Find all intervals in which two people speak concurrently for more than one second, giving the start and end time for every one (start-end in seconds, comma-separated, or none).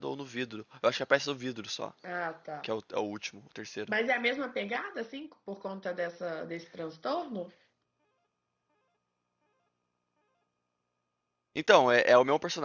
none